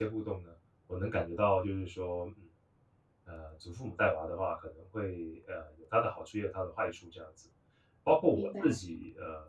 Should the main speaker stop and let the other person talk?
No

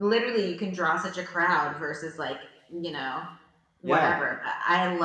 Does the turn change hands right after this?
No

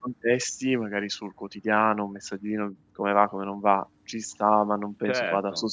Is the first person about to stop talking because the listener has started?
Yes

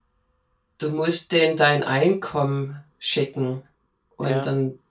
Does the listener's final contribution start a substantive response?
No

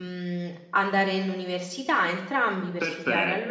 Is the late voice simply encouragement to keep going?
No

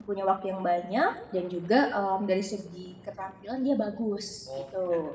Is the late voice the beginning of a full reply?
Yes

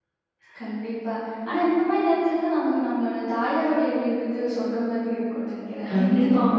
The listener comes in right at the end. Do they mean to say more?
Yes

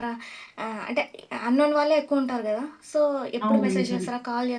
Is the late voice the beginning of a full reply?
No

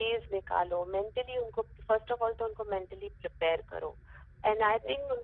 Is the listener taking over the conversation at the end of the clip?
No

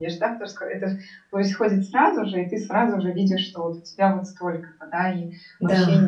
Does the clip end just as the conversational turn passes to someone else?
No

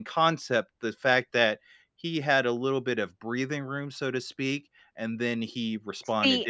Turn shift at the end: Yes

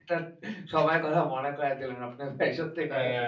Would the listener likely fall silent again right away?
No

